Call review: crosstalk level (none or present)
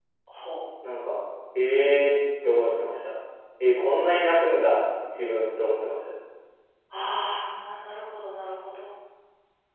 none